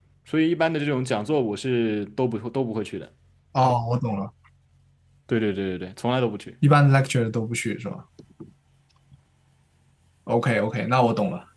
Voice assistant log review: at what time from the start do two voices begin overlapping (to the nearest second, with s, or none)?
none